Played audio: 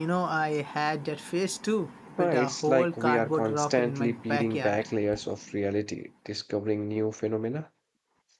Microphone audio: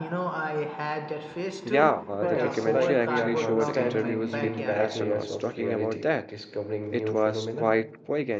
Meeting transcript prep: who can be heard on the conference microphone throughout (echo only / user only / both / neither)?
both